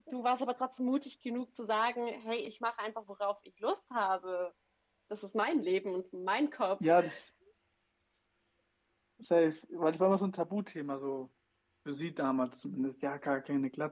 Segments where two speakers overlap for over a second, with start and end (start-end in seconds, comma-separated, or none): none